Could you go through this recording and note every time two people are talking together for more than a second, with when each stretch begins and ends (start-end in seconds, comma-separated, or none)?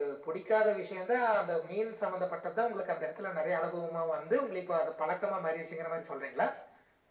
none